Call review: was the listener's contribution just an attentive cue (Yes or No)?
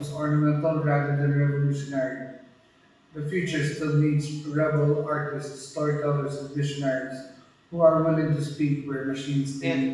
No